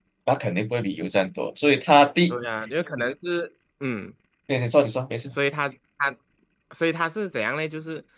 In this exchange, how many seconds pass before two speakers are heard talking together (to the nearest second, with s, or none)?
none